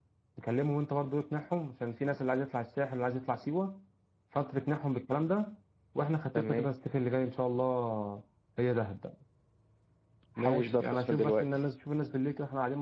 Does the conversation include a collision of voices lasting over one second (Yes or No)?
Yes